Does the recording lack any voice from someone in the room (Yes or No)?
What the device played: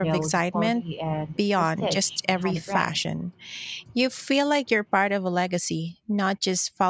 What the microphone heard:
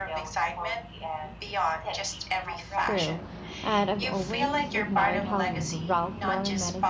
No